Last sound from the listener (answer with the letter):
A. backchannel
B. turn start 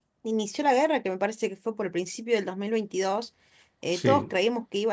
A